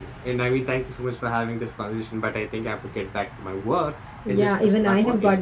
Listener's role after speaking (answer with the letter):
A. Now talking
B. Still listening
A